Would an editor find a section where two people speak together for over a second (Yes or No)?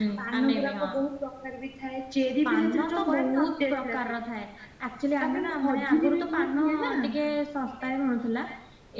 Yes